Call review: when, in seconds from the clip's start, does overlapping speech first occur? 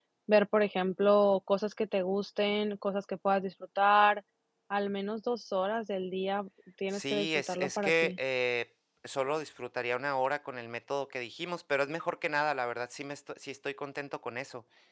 6.9 s

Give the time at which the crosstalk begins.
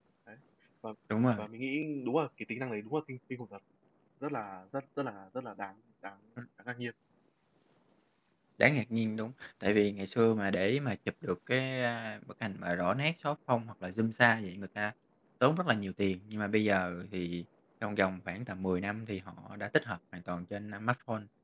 none

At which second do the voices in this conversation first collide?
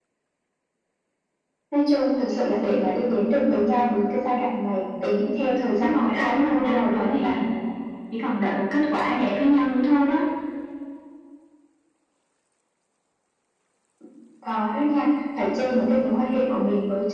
5.7 s

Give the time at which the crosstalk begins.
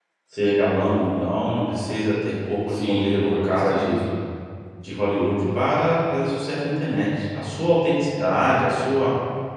2.7 s

